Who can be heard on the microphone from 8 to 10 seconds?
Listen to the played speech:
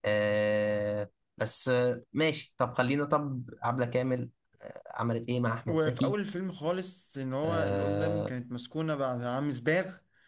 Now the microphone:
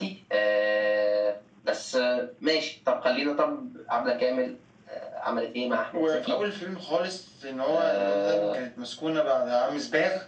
echo only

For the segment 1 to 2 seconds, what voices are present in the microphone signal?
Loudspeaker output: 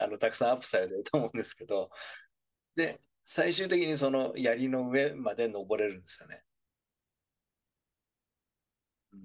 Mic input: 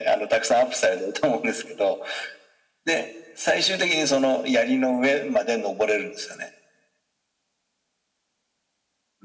echo only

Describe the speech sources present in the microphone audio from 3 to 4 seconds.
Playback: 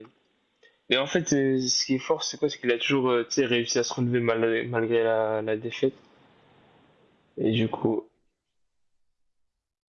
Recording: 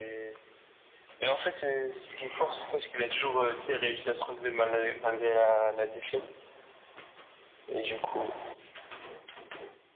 echo only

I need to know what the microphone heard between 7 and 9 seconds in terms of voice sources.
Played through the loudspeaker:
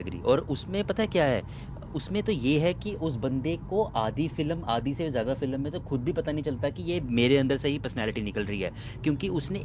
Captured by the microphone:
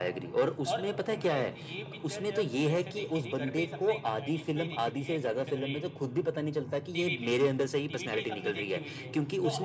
both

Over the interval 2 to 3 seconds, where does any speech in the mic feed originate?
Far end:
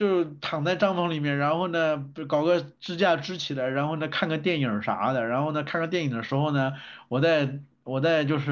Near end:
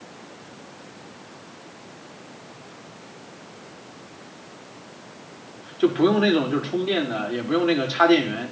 neither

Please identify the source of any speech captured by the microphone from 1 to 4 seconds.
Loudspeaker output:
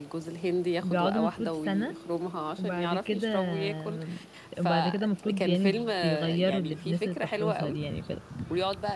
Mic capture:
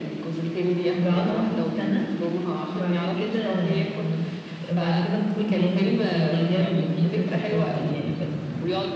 echo only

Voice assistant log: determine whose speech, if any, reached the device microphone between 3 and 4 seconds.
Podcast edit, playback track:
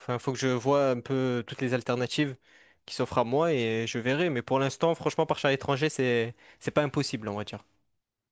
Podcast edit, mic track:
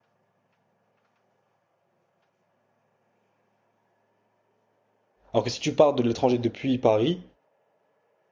neither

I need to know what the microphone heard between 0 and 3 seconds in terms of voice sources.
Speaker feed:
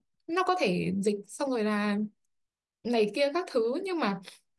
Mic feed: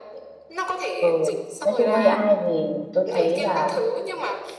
both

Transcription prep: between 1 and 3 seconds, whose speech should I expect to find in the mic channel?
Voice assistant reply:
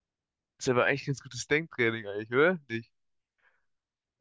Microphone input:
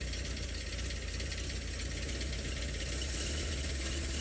neither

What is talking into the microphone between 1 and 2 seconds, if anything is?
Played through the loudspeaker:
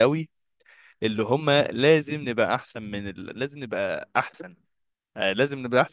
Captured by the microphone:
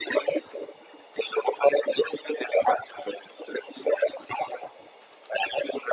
echo only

